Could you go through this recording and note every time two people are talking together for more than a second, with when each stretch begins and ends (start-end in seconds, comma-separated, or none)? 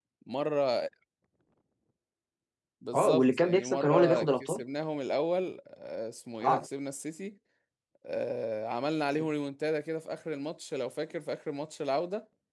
3.0-4.6